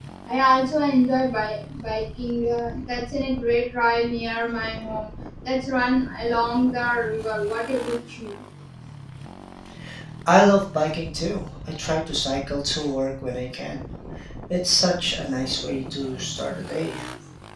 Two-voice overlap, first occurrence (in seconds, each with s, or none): none